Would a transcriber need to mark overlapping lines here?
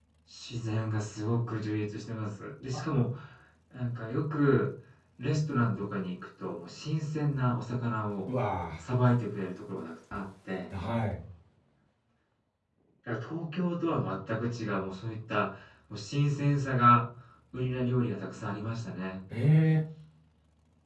No

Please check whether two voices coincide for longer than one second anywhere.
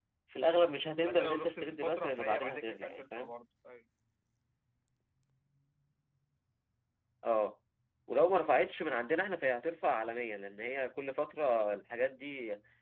Yes, from 1.0 s

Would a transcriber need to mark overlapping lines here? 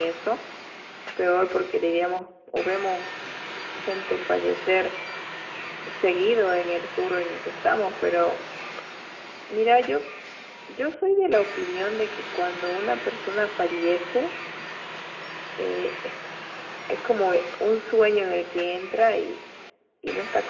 No

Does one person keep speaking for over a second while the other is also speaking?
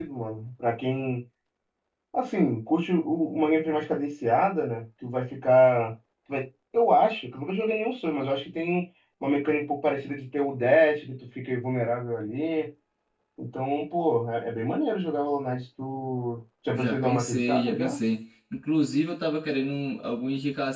Yes, from 16.7 s

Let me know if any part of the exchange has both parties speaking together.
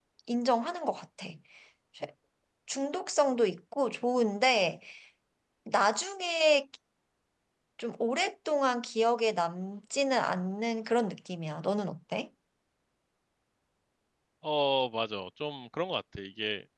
No

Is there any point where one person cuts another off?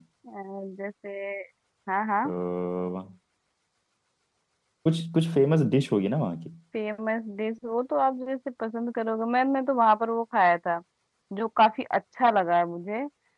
No

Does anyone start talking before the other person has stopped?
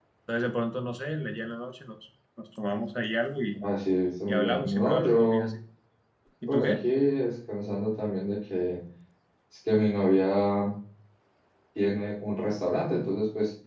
Yes, from 4.3 s

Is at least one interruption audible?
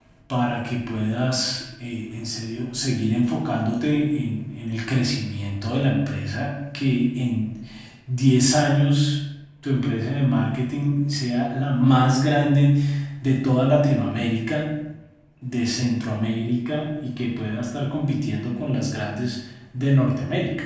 No

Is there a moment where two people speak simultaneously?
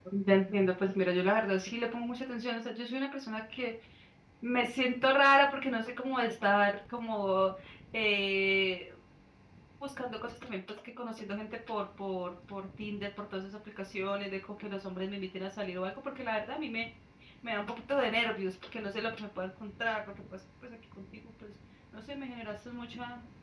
No

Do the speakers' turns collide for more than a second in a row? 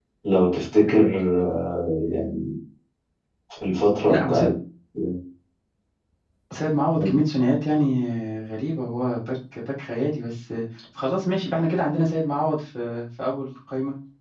No

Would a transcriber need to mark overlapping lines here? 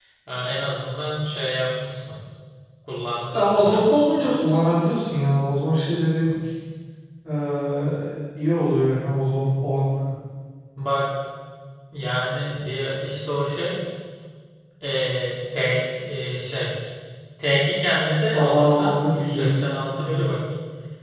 Yes, from 3.3 s

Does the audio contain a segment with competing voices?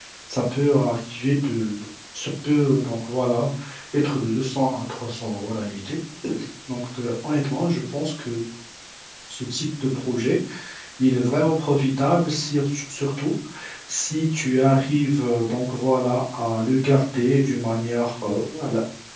No

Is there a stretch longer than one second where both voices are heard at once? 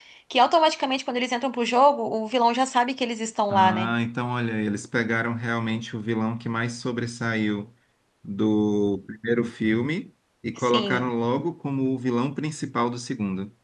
No

